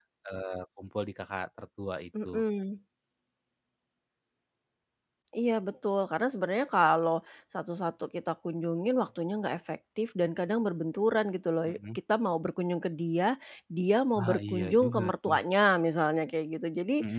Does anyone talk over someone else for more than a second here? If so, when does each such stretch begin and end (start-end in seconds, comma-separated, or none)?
14.2-15.4